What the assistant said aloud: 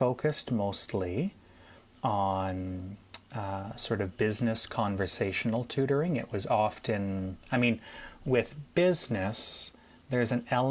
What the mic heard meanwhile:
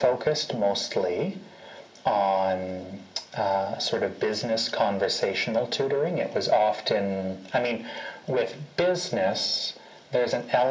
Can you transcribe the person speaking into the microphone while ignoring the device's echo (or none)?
none